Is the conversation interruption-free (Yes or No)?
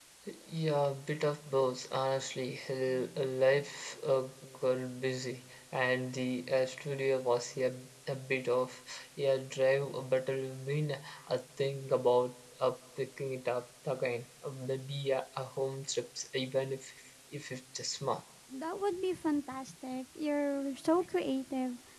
Yes